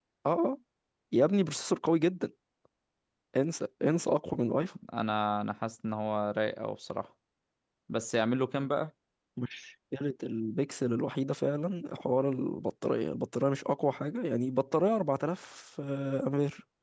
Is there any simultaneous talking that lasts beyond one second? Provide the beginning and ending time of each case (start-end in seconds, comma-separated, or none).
none